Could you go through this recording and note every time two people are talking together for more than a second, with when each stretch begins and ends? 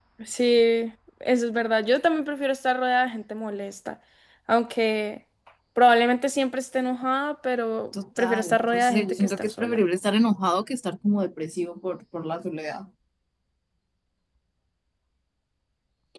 8.2-9.8

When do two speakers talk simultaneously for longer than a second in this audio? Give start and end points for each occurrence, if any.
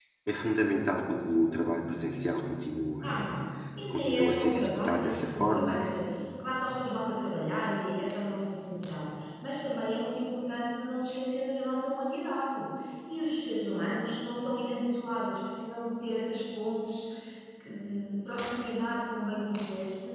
3.9-5.8

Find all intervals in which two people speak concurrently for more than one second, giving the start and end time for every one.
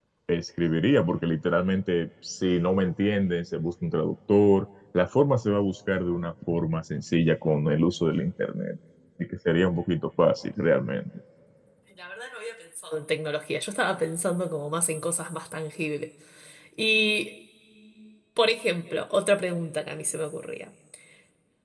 none

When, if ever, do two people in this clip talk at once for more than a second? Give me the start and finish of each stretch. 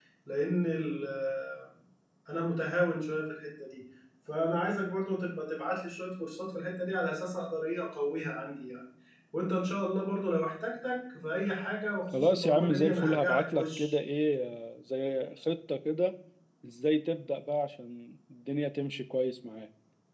12.1-13.9

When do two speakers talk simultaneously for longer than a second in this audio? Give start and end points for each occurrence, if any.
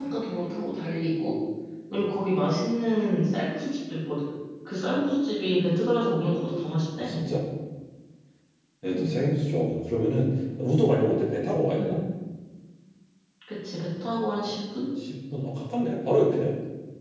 none

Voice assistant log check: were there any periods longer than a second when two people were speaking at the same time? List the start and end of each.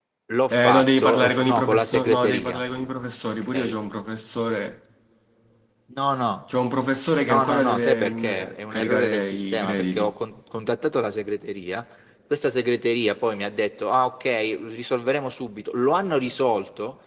0.5-2.6, 7.2-10.1

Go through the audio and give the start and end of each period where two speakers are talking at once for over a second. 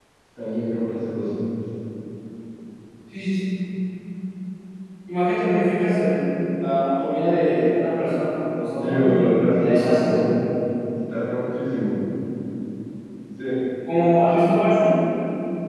8.8-10.2

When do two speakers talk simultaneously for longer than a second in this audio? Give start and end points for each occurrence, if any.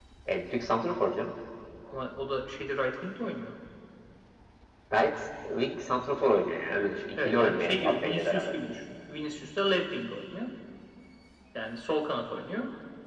7.2-8.5

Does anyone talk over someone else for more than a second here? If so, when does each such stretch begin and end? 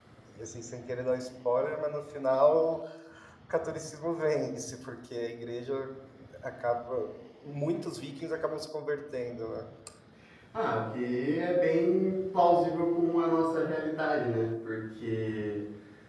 none

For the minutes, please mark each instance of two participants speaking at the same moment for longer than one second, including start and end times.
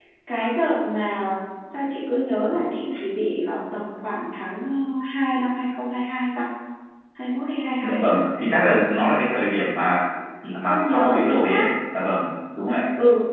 10.4-11.7

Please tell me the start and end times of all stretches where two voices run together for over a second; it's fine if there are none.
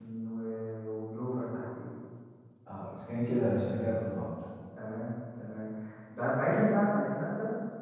none

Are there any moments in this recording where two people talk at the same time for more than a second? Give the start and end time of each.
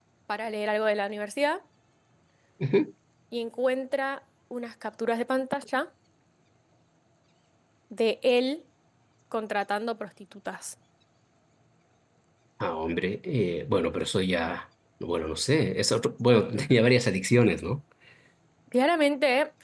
none

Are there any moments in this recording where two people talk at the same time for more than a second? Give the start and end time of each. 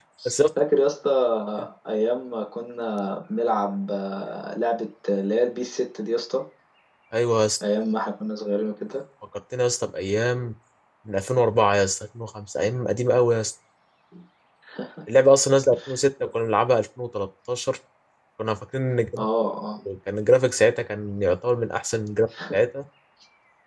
none

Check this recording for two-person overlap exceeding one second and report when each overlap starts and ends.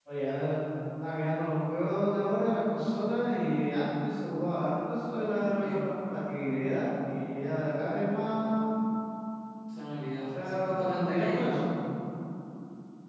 10.3-11.6

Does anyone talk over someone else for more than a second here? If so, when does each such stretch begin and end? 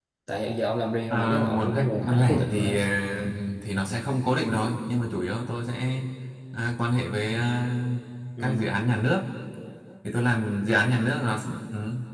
1.1-2.8

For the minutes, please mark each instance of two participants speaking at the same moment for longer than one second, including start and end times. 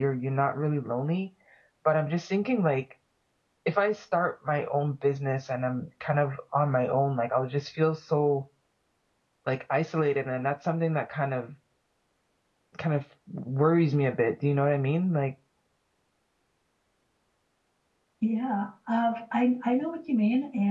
none

